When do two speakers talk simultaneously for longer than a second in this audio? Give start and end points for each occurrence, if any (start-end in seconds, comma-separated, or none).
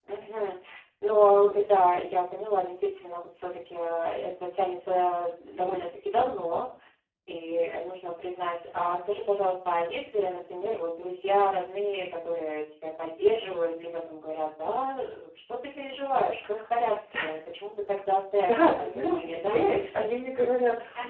18.4-19.7